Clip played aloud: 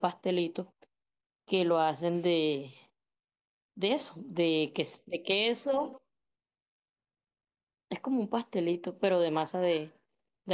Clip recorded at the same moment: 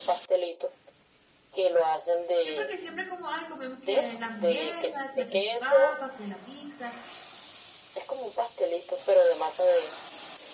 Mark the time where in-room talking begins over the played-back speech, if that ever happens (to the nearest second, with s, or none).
2 s